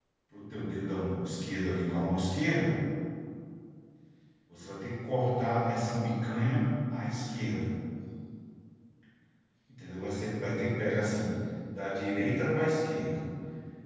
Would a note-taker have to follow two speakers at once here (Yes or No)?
No